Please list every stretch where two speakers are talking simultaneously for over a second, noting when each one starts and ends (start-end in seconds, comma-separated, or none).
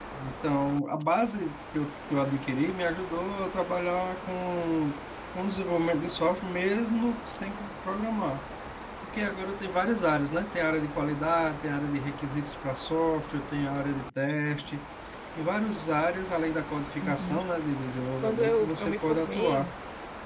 18.2-19.7